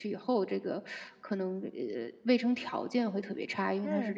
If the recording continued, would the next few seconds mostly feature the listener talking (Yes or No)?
No